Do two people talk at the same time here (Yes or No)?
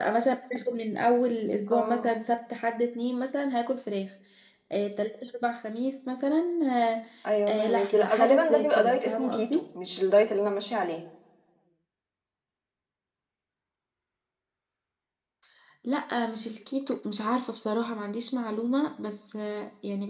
Yes